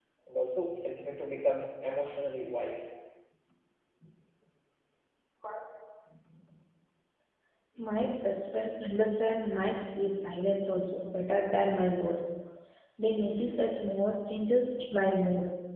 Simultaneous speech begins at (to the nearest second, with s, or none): none